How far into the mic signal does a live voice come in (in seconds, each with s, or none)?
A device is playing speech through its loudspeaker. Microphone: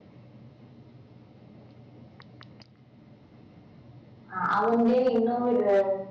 4.3 s